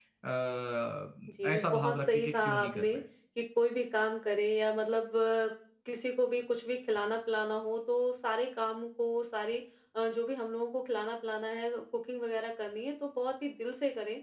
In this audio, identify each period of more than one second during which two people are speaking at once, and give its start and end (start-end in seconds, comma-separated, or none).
1.4-2.9